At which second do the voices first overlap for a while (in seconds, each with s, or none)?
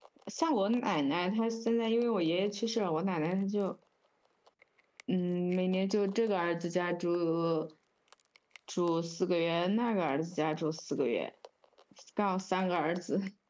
none